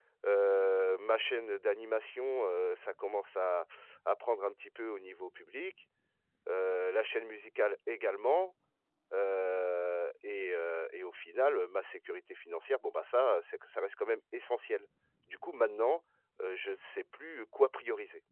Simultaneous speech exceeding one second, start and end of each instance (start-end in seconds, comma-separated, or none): none